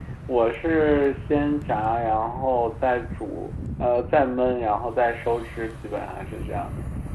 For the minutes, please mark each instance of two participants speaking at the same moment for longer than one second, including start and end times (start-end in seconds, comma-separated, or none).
none